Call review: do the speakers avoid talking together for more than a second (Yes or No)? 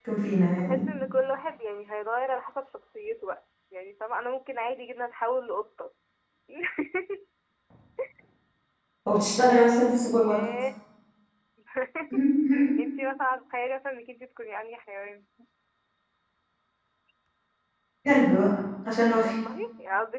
Yes